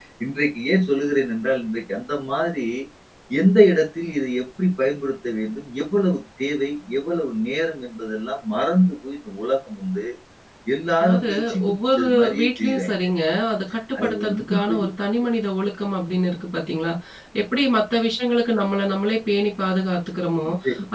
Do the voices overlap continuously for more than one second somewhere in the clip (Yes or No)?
Yes